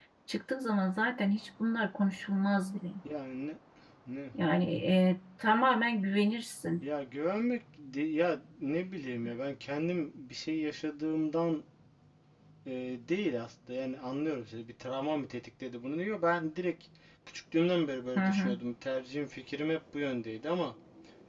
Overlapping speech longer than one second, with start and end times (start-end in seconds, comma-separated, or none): none